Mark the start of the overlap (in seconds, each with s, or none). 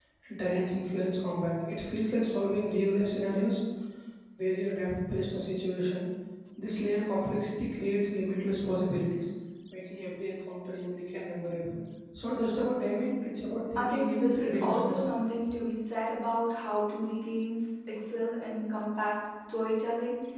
13.8 s